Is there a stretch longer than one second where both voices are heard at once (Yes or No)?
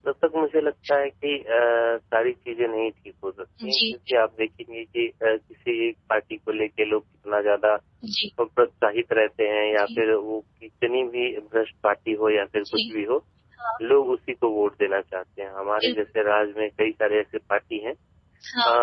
No